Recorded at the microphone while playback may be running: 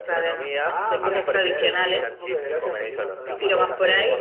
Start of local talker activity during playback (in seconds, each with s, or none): 0.7 s